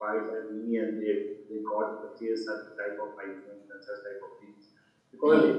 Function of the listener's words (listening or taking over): listening